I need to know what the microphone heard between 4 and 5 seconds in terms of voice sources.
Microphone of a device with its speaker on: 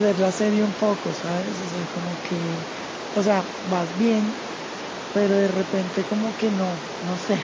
user only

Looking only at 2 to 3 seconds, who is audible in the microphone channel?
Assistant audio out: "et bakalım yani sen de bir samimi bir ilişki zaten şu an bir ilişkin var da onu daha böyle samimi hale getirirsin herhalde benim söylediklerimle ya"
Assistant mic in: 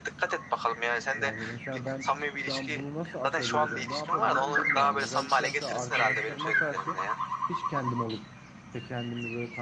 both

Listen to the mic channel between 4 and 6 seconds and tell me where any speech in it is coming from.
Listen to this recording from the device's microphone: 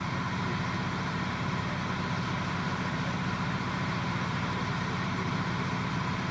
neither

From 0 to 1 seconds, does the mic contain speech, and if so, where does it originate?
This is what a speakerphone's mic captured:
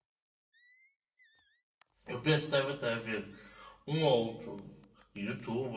neither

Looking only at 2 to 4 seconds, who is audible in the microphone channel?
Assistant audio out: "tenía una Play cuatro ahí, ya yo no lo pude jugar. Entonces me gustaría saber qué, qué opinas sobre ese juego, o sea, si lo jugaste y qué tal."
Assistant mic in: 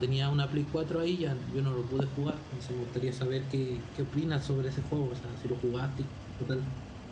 echo only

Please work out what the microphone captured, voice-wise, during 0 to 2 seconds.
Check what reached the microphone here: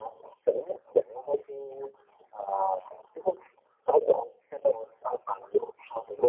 echo only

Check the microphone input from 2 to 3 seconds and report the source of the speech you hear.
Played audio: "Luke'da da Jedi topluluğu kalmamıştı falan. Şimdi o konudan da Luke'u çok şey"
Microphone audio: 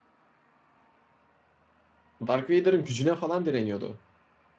user only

